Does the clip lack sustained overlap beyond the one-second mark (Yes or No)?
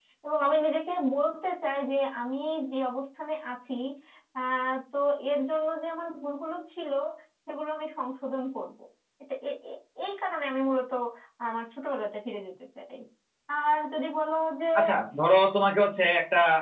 Yes